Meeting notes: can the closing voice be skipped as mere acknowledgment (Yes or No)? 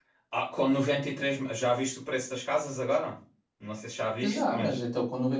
No